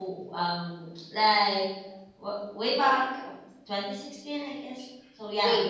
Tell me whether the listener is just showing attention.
No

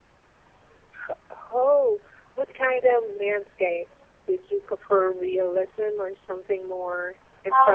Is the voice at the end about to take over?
Yes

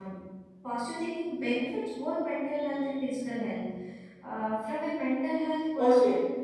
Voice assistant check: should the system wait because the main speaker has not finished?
No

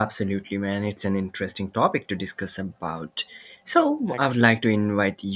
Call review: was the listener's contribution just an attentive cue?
Yes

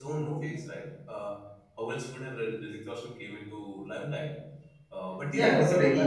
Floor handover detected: Yes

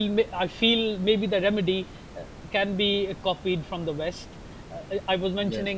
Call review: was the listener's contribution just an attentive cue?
Yes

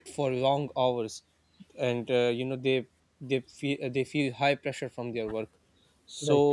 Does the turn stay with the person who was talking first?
Yes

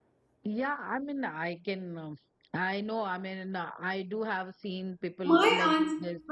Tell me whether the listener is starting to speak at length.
Yes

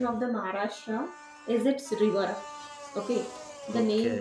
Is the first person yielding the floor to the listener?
No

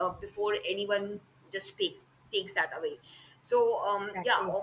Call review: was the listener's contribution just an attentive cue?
Yes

